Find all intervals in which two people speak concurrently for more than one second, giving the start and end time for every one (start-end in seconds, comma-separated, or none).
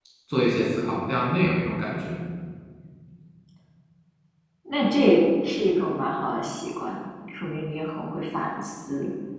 none